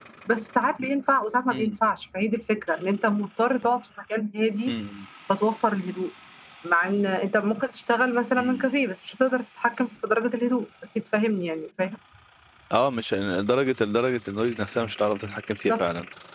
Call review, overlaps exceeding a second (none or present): none